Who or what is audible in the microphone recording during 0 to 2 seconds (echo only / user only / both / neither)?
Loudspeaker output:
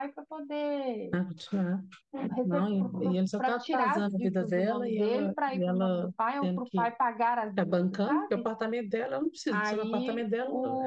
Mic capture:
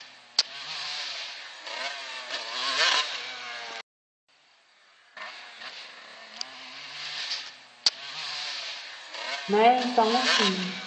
neither